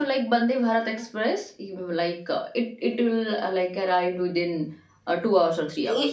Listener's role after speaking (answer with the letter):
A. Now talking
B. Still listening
A